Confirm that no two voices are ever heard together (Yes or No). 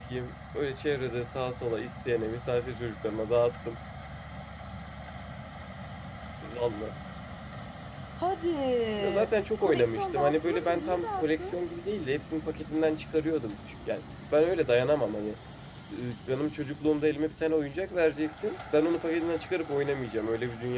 No